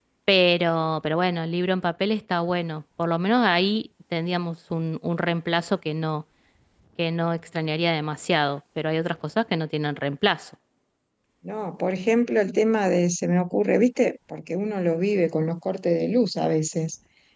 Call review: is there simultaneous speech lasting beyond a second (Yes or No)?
No